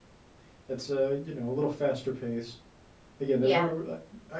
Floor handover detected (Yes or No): No